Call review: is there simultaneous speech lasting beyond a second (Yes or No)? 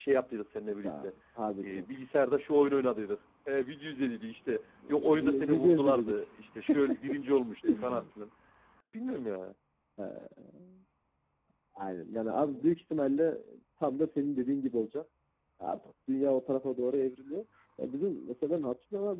Yes